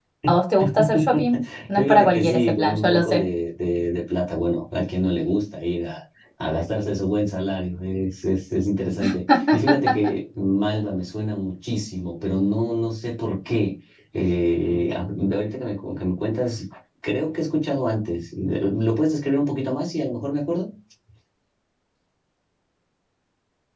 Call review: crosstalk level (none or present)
present